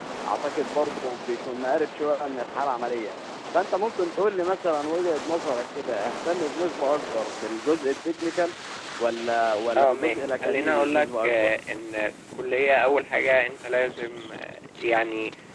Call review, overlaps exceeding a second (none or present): present